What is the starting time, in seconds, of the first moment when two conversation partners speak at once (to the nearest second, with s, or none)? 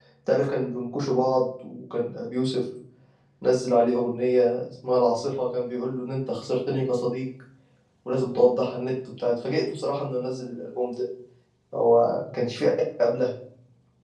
none